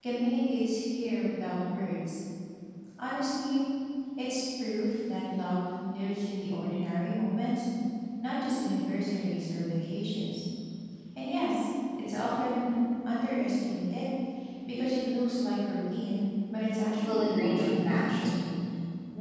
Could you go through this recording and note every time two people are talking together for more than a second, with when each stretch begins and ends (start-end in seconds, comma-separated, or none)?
17.0-18.4